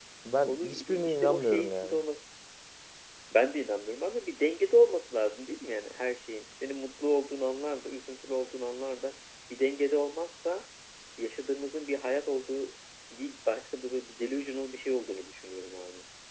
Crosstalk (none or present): present